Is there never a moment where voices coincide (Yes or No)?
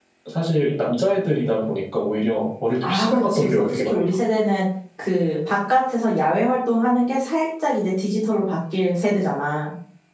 No